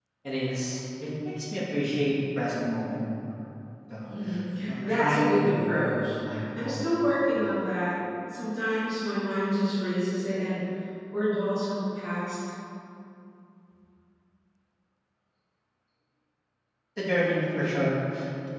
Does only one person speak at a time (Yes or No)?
No